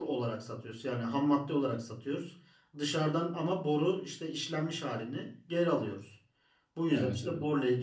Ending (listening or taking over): listening